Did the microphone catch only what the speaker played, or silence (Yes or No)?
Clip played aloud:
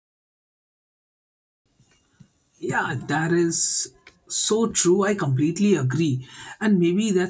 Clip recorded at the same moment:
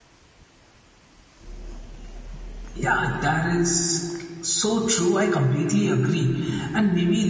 Yes